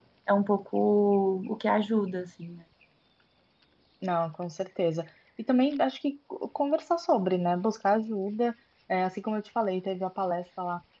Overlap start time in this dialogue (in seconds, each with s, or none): none